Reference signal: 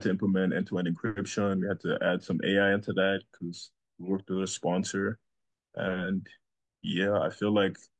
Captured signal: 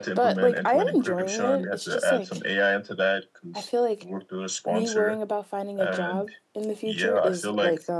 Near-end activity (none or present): present